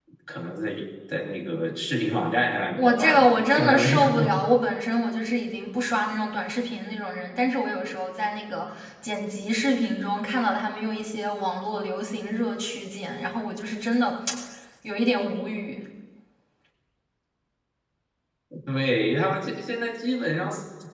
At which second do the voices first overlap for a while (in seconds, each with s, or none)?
2.8 s